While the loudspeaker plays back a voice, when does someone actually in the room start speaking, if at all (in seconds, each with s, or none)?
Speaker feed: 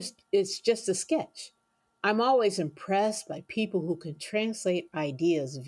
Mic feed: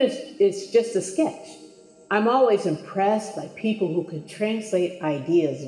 none